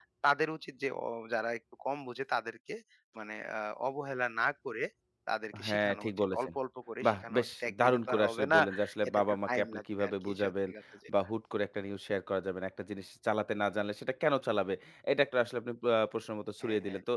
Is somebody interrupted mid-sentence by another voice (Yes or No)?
Yes